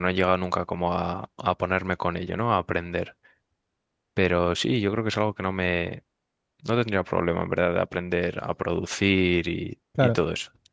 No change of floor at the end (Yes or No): No